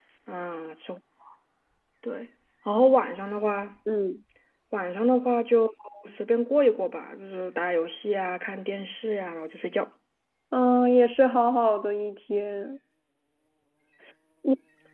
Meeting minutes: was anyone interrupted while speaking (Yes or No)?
No